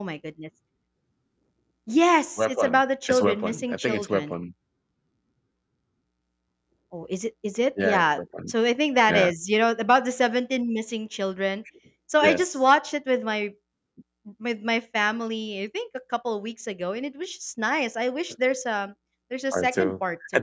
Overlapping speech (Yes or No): Yes